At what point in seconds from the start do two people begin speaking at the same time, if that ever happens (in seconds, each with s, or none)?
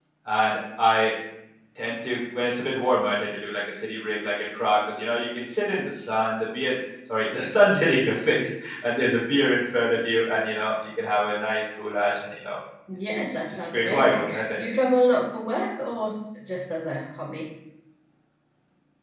12.9 s